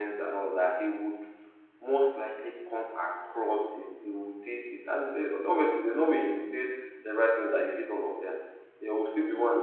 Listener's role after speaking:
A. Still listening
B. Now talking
A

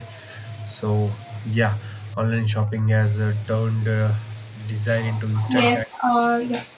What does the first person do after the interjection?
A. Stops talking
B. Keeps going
A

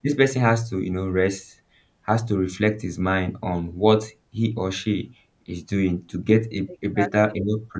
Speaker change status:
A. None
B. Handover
A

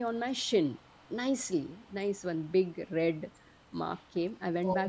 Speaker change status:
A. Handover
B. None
B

